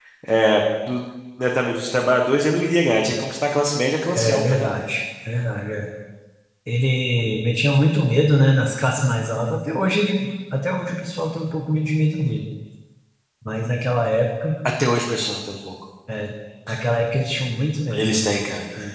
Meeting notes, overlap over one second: none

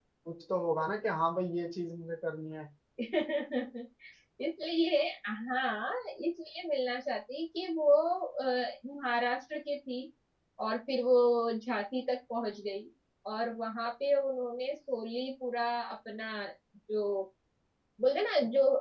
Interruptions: none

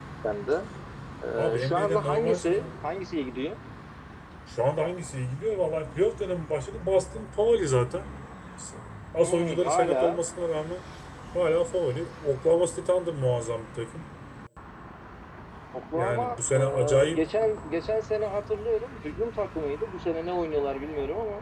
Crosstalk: present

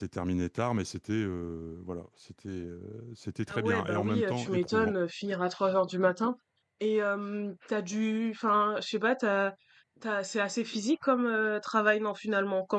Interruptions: present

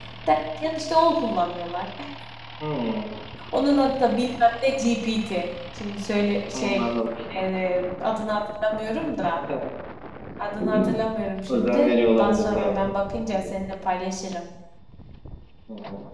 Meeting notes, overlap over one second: present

